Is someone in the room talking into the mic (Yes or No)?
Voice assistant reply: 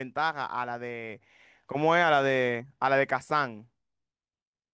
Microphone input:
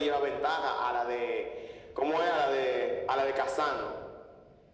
No